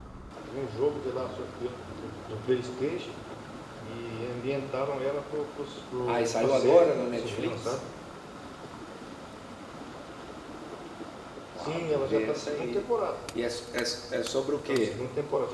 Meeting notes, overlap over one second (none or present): present